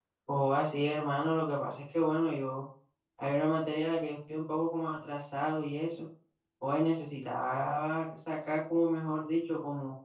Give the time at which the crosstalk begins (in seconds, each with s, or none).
none